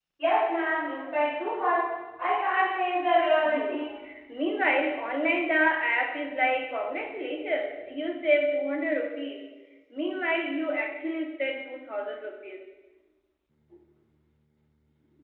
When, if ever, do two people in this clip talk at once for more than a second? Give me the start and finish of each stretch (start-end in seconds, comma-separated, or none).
none